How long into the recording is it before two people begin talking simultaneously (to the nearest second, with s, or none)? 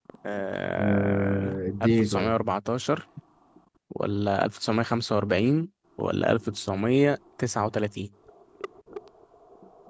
1 s